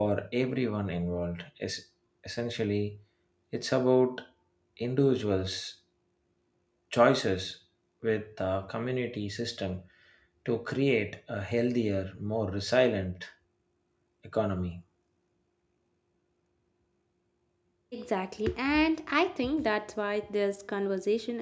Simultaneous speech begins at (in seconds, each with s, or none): none